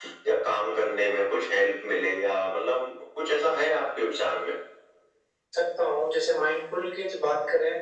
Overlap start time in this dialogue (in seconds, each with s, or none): none